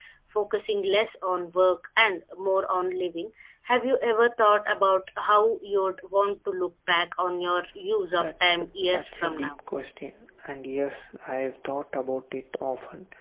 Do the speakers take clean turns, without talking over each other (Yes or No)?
No